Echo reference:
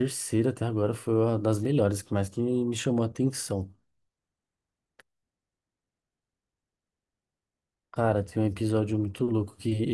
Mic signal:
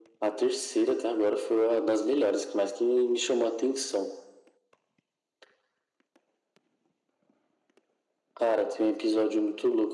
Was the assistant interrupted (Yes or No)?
No